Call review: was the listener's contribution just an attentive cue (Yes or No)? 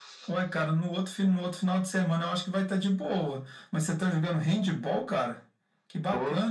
Yes